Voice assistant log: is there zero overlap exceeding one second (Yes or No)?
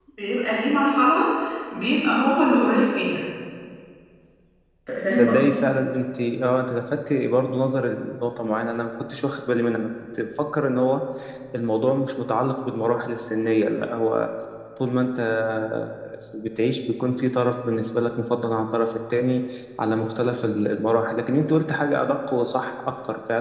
Yes